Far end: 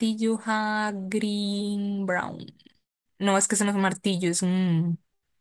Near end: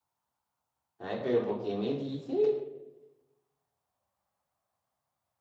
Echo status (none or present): none